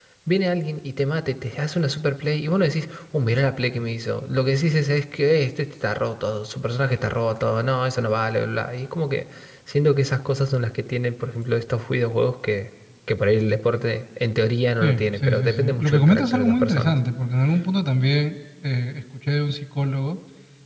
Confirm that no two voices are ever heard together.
No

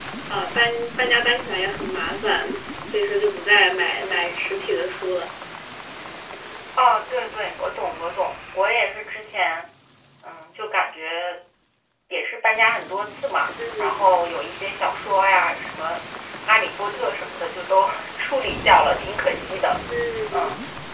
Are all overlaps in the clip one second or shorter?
Yes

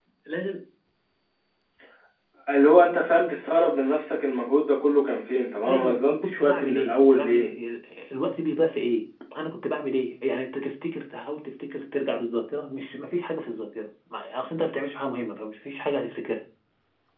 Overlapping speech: Yes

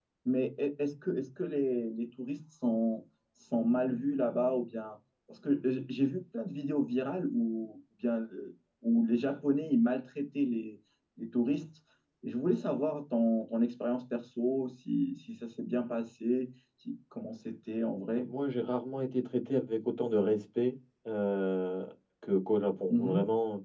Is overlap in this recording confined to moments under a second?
Yes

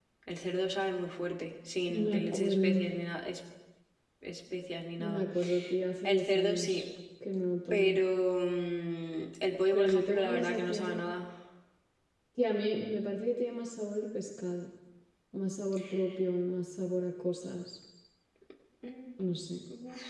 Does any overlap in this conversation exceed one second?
Yes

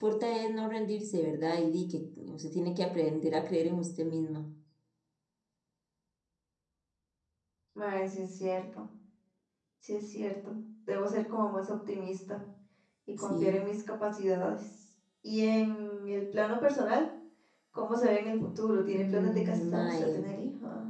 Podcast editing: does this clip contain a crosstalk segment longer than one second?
Yes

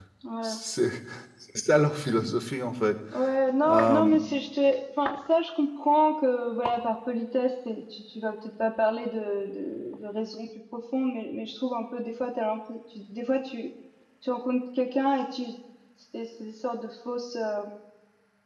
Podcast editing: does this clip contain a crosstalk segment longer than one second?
No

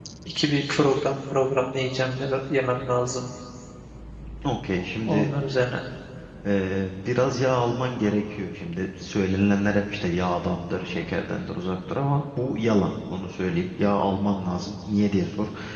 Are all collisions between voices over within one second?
Yes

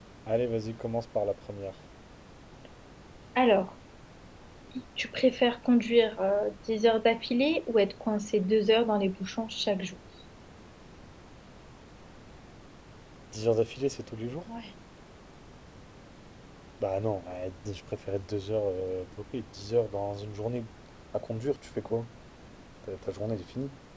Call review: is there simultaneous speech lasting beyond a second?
No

